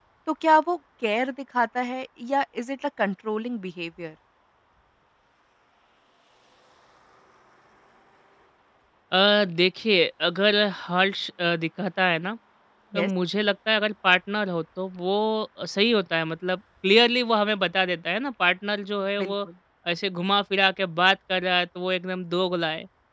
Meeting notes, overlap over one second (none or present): none